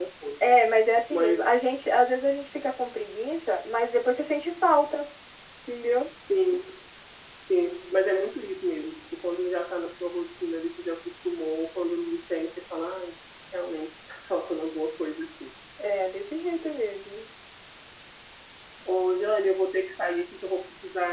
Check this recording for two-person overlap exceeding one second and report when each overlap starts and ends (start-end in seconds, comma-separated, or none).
none